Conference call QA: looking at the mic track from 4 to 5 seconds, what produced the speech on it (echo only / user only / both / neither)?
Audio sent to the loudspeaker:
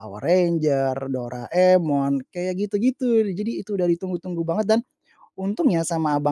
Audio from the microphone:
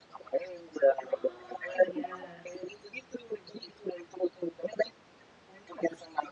echo only